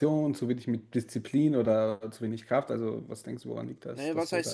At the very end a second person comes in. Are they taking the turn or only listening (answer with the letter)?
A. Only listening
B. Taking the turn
B